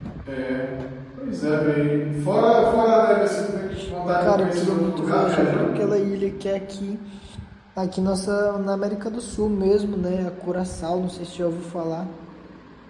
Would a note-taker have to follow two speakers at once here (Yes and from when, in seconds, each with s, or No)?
Yes, from 4.2 s